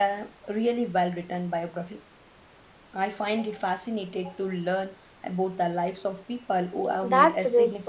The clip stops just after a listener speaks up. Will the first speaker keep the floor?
No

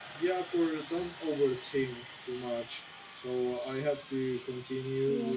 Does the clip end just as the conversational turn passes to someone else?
No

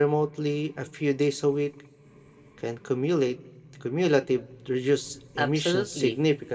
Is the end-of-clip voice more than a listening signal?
Yes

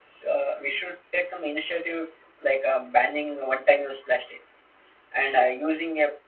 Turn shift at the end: No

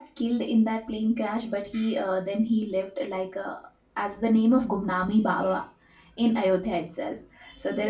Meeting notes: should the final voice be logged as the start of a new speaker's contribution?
No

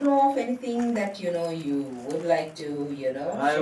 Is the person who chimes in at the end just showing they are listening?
No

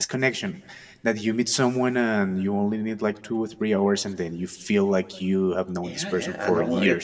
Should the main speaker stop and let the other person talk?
Yes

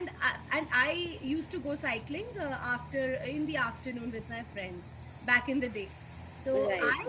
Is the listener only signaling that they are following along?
Yes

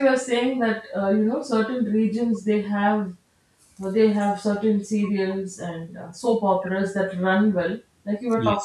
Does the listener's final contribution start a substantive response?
No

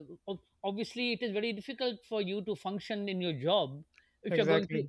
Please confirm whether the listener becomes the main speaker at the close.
No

